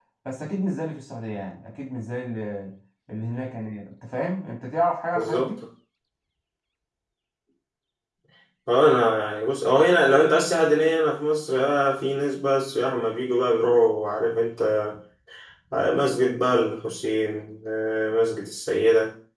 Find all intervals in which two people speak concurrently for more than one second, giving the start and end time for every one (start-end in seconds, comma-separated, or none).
none